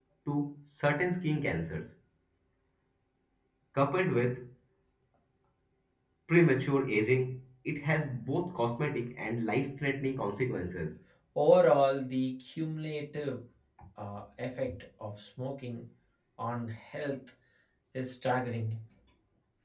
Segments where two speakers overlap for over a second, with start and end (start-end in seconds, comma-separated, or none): none